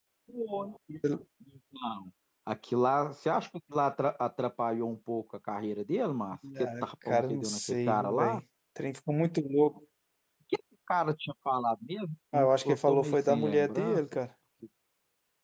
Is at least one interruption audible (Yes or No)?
Yes